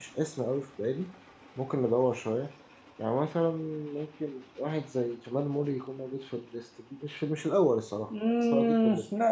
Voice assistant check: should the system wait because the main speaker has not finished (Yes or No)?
No